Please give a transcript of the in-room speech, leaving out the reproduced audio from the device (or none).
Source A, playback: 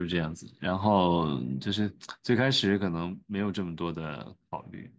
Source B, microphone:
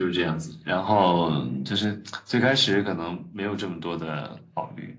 none